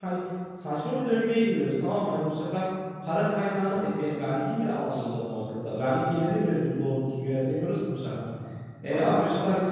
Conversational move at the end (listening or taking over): listening